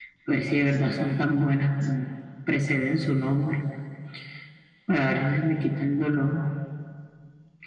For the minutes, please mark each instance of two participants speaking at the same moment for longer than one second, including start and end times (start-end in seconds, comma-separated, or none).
none